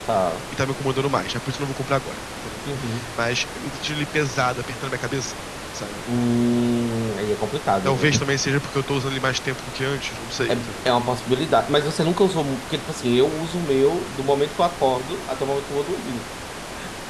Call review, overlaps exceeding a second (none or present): none